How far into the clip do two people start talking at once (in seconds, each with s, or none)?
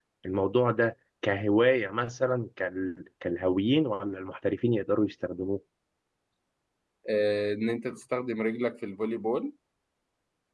none